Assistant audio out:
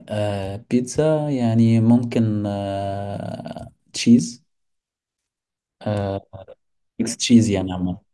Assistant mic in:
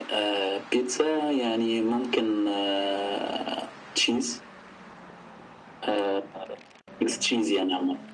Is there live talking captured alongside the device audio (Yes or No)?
No